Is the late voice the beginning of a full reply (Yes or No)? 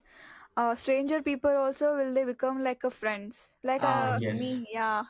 No